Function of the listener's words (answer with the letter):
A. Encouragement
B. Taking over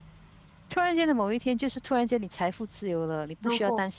A